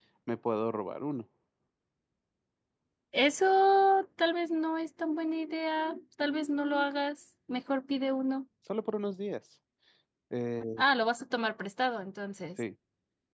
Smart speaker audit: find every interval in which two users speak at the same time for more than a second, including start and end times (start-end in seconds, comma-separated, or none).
none